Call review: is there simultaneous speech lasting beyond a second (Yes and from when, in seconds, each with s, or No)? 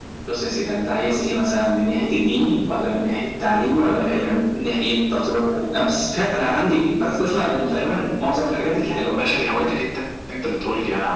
No